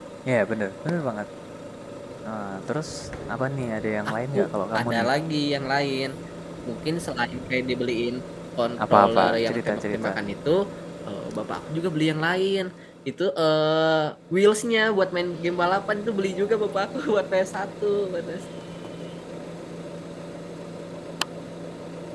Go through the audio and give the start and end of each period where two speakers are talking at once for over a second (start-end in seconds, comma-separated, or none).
8.9-10.1